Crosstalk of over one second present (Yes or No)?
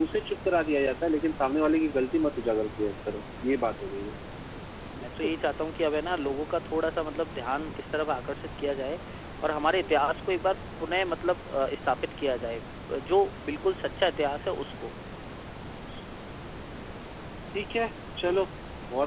No